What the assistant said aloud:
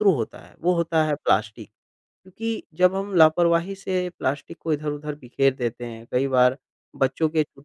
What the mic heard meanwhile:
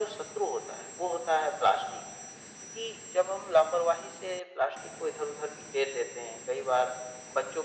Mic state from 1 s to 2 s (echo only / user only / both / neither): echo only